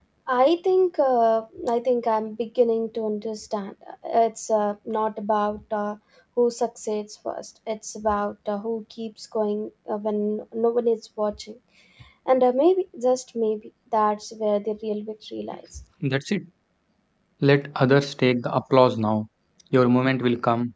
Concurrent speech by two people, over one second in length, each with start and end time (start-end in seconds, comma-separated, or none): none